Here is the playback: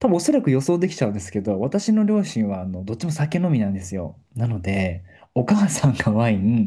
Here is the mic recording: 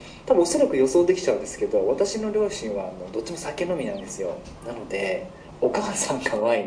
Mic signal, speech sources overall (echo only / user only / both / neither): echo only